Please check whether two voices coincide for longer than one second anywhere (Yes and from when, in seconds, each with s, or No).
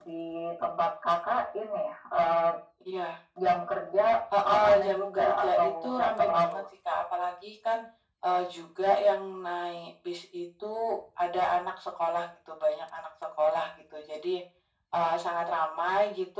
Yes, from 4.5 s